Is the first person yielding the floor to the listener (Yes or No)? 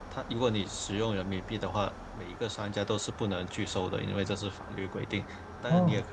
No